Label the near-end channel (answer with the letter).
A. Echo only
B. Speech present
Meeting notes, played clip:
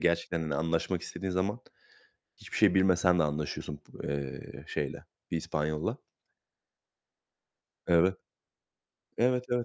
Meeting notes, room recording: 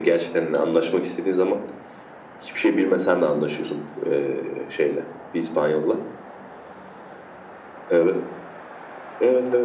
A